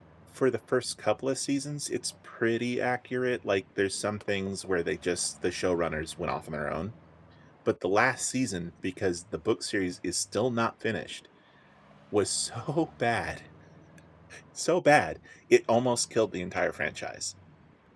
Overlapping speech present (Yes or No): No